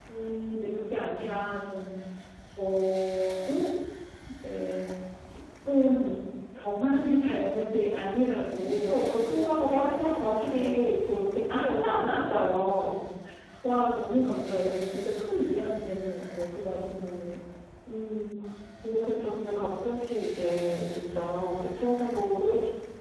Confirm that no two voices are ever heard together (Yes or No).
No